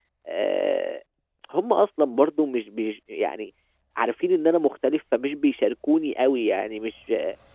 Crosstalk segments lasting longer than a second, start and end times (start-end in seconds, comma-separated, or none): none